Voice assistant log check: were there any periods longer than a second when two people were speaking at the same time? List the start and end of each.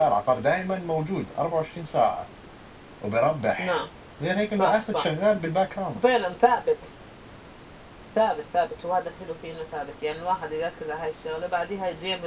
none

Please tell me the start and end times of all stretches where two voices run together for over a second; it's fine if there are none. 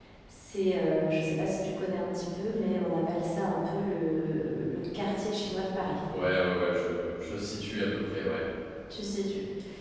none

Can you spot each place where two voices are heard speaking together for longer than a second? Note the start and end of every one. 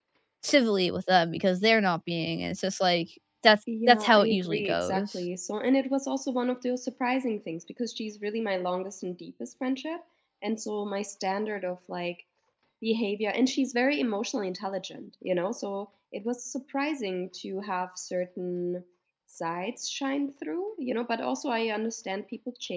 3.9-5.2

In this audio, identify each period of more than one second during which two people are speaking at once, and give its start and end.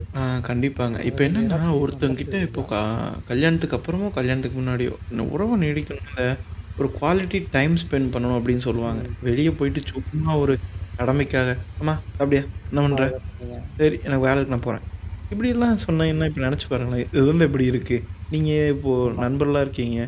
1.1-2.7

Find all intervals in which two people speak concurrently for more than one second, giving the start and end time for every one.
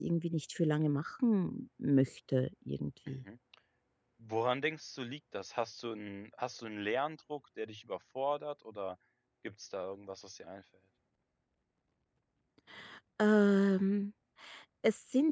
none

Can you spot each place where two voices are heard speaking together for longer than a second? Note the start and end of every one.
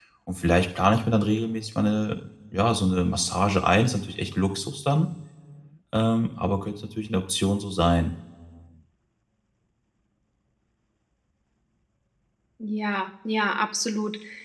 none

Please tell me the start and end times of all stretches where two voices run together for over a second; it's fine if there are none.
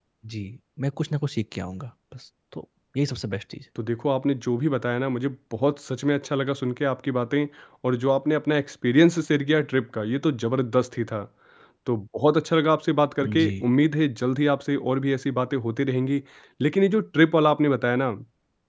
none

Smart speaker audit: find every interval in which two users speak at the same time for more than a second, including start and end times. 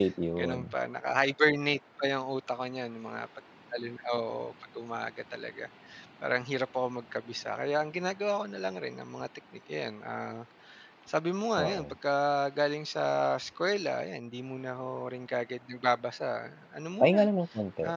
none

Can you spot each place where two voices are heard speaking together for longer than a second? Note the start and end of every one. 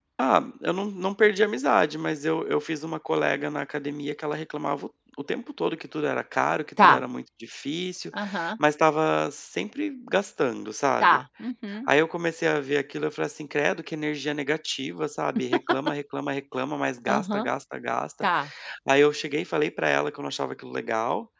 none

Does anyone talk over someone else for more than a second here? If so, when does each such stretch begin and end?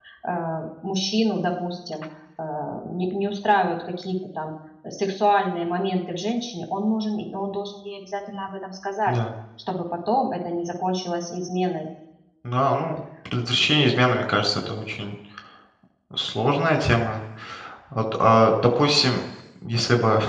none

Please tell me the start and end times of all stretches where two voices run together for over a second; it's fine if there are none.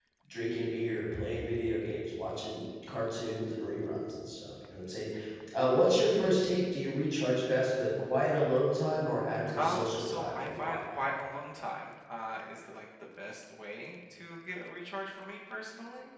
9.6-10.9

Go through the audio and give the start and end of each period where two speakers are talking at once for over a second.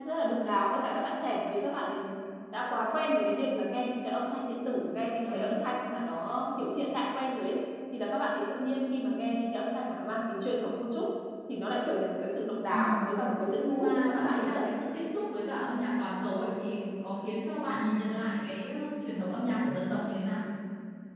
13.4-14.7

